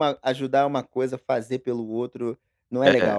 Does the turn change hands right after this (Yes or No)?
Yes